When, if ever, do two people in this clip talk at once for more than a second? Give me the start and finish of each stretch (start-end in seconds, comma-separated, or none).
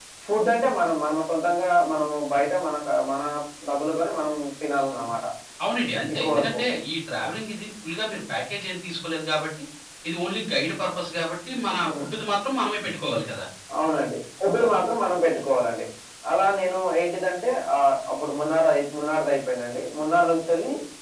none